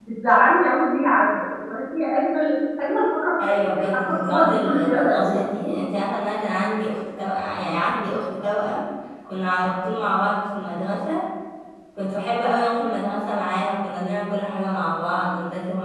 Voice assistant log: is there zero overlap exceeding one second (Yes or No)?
No